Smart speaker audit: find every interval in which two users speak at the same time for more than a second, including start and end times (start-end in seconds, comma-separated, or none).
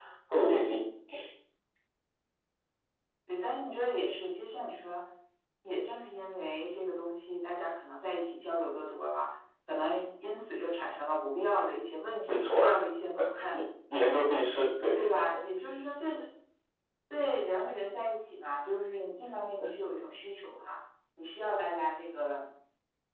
none